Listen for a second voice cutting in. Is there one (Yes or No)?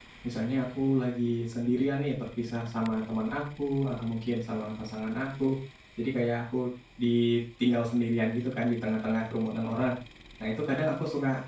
No